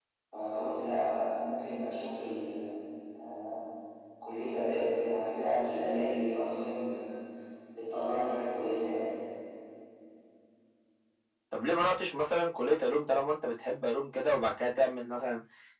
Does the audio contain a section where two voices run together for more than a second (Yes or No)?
No